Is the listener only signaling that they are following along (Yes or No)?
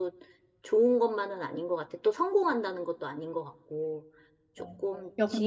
No